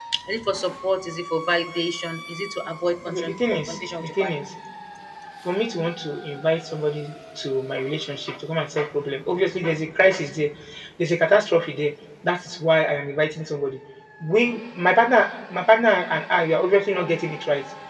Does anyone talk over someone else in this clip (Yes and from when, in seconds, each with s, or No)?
Yes, from 3.1 s